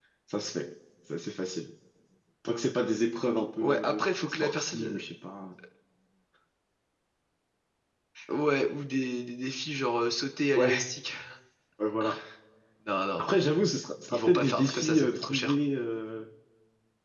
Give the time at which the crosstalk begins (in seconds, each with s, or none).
3.6 s